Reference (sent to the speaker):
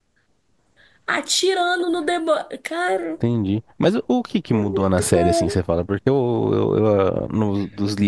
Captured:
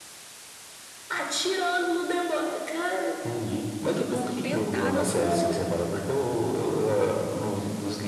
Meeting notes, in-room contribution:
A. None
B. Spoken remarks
B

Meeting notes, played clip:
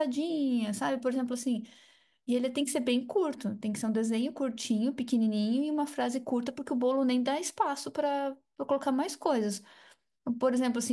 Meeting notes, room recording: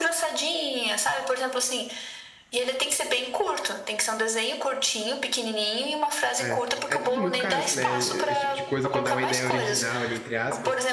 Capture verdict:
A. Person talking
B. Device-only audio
A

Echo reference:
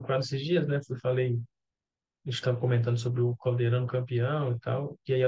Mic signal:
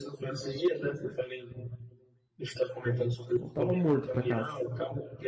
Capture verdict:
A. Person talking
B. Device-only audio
A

